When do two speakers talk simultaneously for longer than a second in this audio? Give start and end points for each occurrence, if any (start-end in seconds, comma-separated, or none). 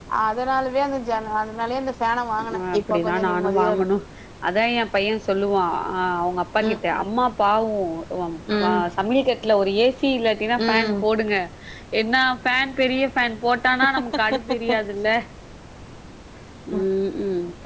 2.5-3.8